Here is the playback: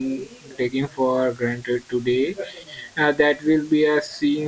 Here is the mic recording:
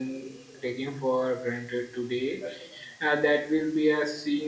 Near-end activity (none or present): none